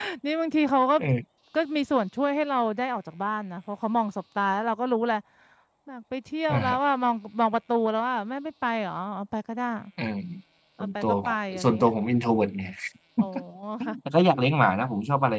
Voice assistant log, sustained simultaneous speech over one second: none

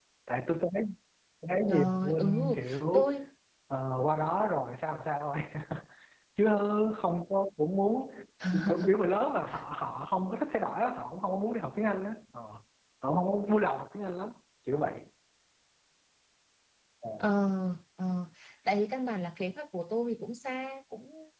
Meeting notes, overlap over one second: present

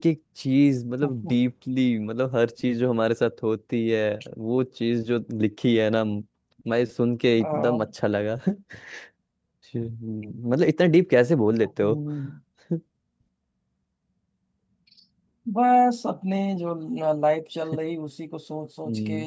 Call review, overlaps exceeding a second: none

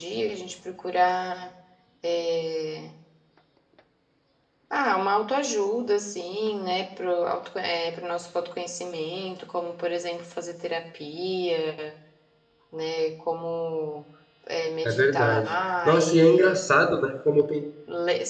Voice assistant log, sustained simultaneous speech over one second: present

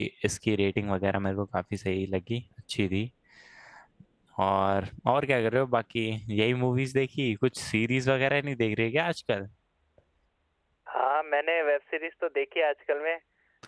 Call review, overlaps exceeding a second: none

